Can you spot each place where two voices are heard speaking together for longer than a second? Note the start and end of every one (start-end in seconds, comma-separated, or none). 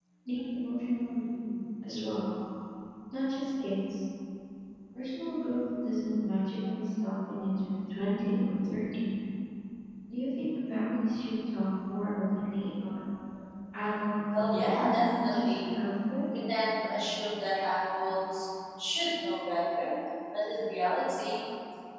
14.4-15.7